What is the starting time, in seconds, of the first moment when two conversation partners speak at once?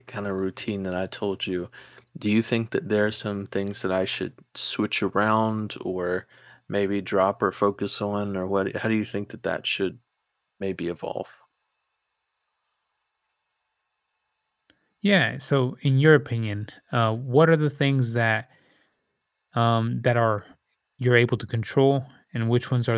none

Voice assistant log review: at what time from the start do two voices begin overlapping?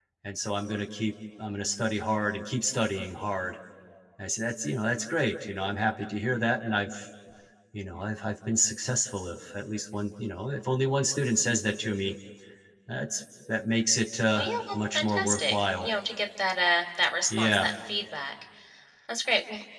14 s

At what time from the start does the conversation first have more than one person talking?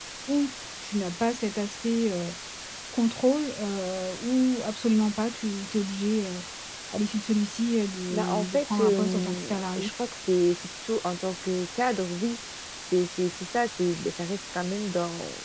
8 s

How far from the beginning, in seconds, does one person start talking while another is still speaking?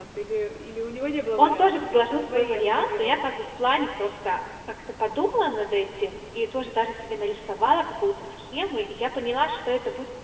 1 s

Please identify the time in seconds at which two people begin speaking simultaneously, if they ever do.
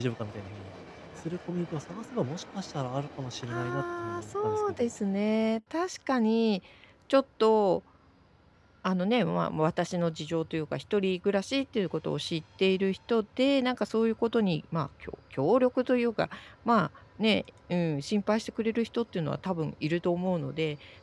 3 s

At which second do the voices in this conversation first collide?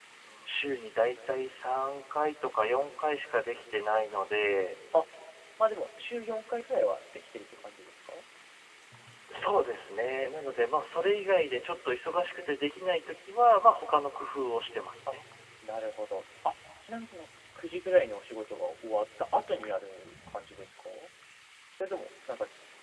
none

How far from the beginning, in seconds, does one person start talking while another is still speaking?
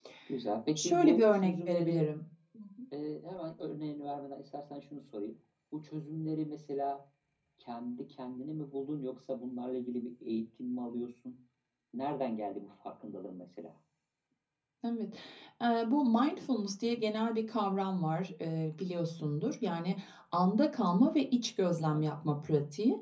1 s

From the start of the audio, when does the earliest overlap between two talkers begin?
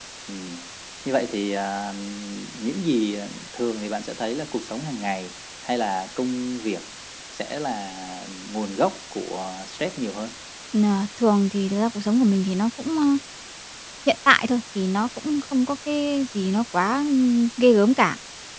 none

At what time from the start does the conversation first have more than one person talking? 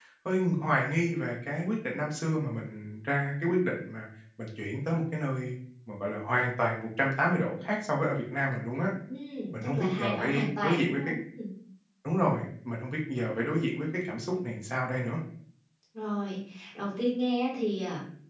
10 s

